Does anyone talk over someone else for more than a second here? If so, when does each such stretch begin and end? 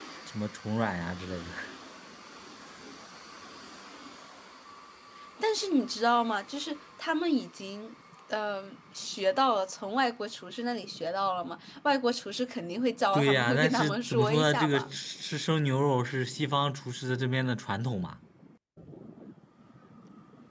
13.1-14.9

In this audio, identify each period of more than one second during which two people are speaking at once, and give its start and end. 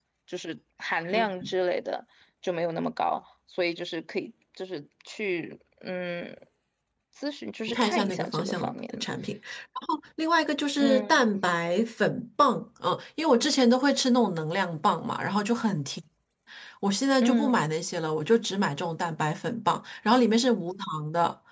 7.7-9.1

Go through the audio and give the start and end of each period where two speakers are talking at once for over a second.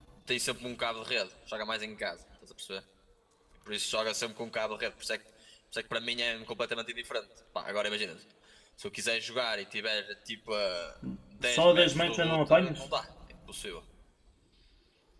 11.4-12.9

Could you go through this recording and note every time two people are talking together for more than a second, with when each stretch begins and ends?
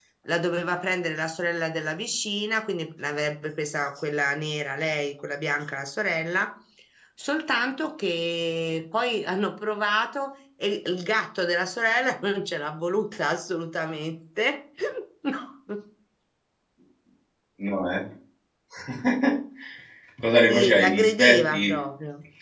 20.5-21.8

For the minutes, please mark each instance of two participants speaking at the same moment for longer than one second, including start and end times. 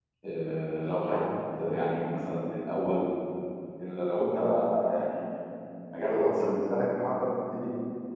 none

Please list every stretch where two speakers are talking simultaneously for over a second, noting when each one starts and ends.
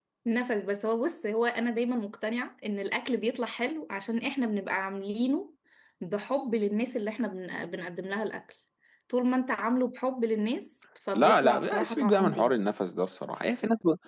11.2-12.5

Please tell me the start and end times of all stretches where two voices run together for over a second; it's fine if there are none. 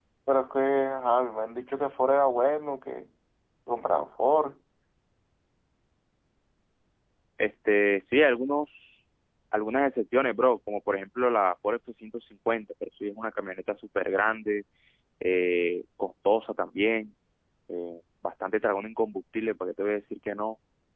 none

